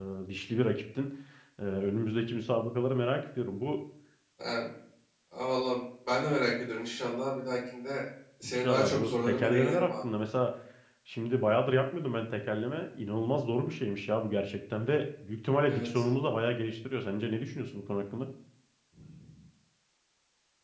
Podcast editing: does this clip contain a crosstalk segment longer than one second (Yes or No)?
Yes